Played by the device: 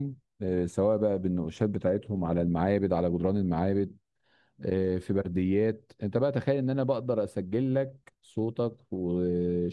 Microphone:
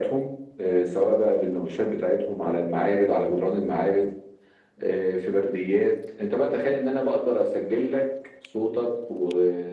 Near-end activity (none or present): none